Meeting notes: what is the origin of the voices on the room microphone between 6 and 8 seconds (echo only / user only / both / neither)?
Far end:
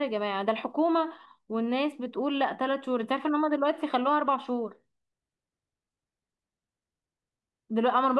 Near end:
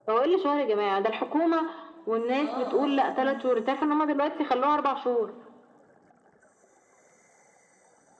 neither